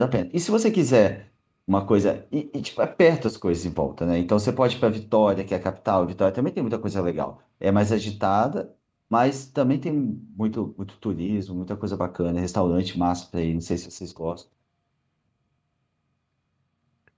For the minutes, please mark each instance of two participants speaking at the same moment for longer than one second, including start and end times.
none

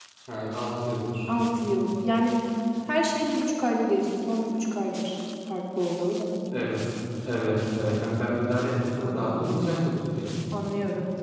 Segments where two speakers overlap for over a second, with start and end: none

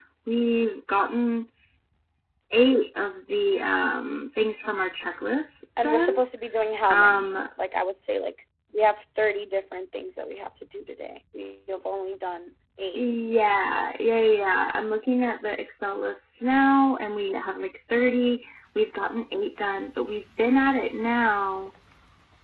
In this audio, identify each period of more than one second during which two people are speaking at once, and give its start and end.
none

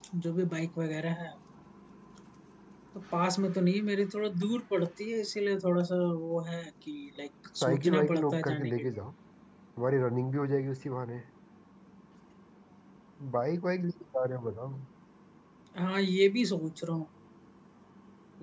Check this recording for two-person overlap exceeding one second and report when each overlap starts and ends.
7.6-8.9

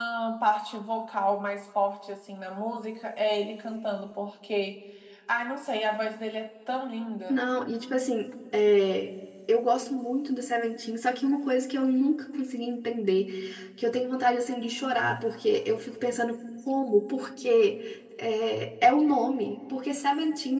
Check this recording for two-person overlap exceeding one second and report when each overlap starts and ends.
none

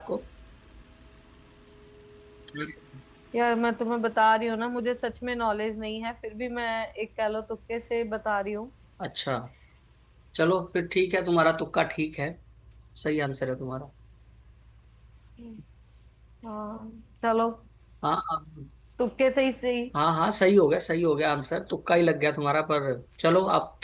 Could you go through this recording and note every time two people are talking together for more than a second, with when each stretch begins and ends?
none

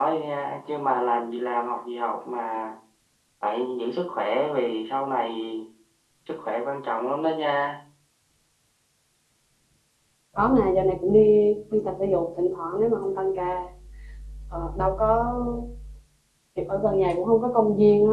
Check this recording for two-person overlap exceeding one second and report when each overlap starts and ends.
none

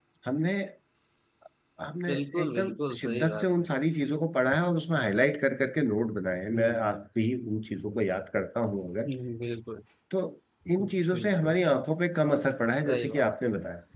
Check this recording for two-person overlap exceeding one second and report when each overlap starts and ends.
2.1-3.5

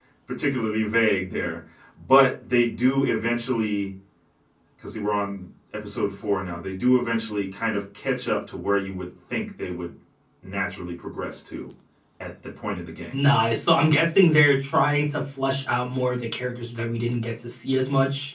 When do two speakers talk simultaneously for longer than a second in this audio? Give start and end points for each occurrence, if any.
none

